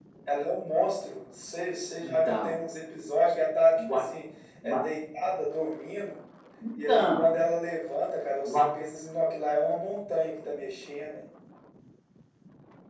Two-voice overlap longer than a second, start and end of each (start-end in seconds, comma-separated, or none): none